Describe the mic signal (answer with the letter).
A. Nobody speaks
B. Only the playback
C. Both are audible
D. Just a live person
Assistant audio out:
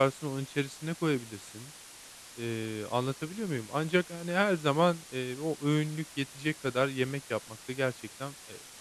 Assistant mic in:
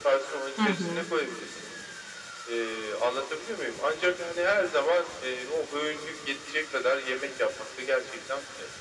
C